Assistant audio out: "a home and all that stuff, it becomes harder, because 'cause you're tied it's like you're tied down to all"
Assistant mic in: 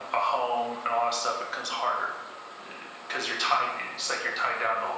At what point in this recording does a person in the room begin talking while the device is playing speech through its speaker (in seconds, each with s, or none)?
none